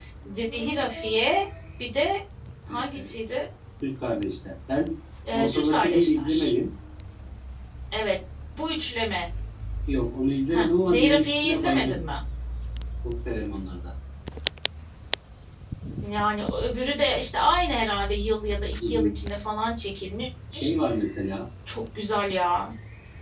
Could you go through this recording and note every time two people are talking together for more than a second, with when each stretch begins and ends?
5.3-6.5, 10.5-12.0

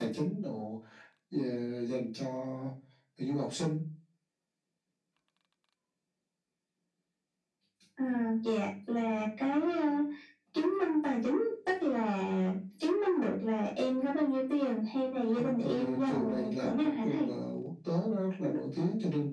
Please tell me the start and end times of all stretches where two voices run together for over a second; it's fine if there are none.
15.3-17.3

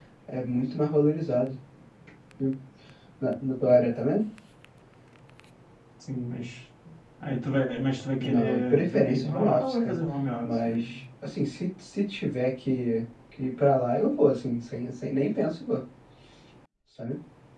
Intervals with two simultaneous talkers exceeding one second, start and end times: 8.2-10.0

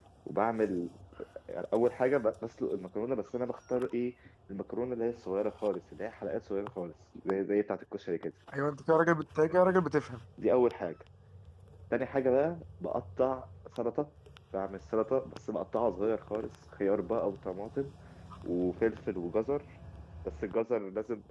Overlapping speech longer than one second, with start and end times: none

